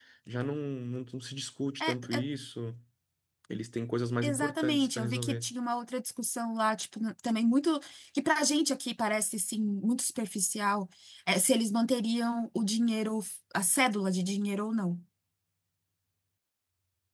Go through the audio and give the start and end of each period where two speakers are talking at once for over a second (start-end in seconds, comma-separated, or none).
4.2-5.5